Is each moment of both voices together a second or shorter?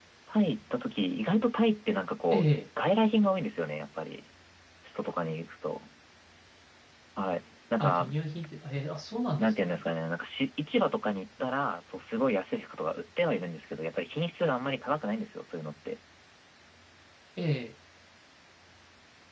Yes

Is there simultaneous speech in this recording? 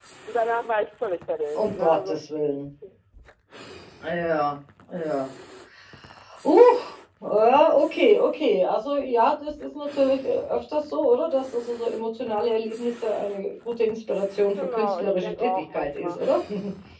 Yes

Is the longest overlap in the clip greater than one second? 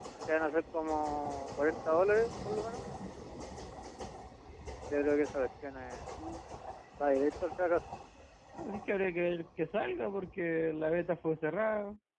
No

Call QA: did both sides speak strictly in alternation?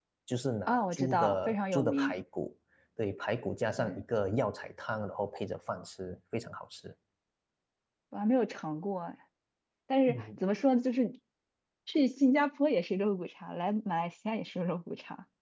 No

